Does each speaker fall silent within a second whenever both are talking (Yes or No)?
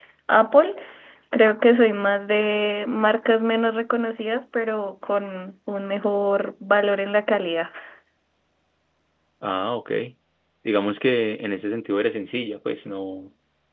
Yes